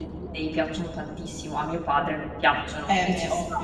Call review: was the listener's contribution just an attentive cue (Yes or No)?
No